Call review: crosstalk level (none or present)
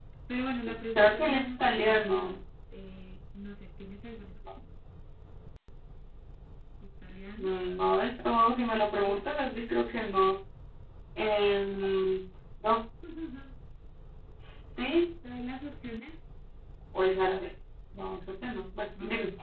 present